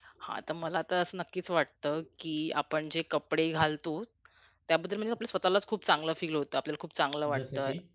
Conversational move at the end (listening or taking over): listening